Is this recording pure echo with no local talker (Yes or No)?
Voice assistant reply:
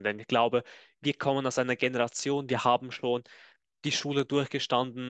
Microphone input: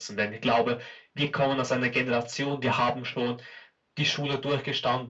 Yes